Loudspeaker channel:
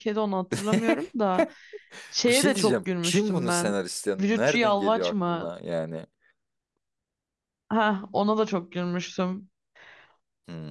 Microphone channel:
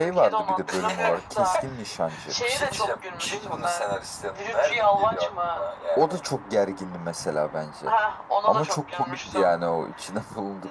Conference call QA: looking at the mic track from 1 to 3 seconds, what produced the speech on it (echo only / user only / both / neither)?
both